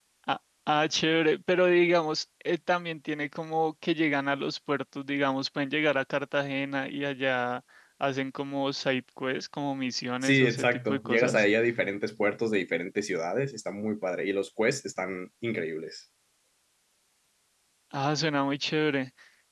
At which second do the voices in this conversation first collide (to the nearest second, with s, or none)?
10 s